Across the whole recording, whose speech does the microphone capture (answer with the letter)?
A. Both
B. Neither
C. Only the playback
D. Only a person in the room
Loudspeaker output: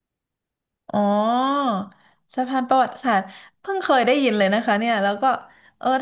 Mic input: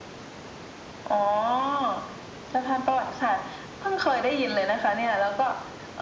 C